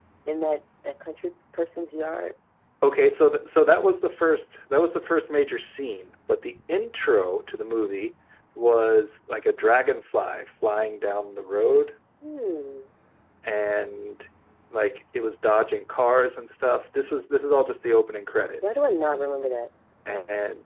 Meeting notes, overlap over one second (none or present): none